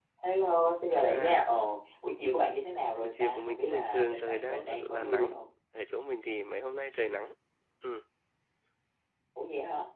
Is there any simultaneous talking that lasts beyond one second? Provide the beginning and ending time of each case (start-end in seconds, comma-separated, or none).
3.0-5.3